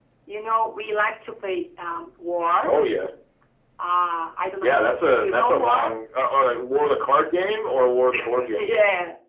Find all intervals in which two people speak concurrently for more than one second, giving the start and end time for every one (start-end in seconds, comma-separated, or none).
4.6-6.0